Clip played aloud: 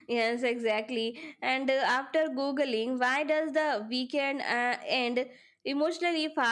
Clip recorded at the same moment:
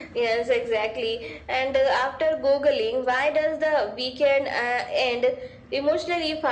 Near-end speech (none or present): none